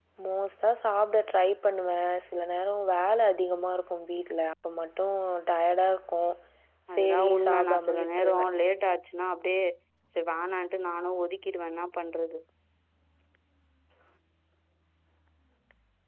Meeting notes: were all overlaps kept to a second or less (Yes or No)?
No